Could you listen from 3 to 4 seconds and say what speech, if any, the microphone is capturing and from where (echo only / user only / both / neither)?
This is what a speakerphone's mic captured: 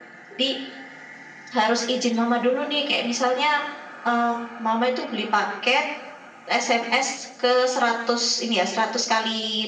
echo only